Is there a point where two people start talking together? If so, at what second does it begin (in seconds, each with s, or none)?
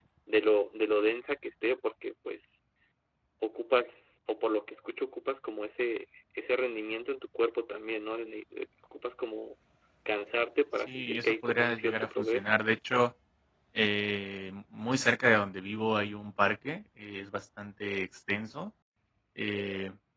10.9 s